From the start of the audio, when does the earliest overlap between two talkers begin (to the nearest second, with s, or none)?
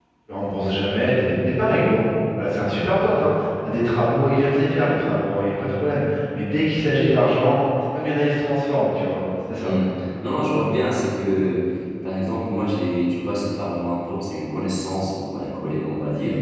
none